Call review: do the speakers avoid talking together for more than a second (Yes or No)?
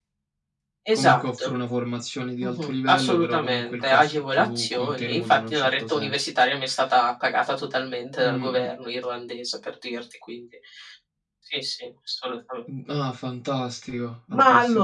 No